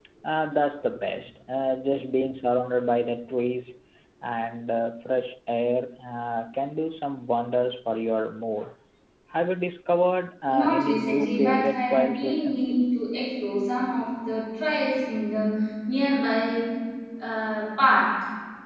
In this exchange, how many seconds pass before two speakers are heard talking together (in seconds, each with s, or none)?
10.5 s